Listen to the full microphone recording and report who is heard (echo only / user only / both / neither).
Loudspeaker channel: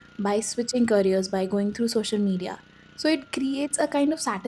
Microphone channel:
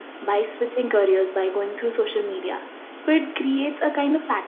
echo only